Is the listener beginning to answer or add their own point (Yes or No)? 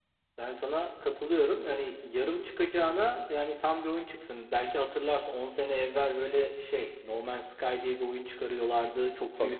No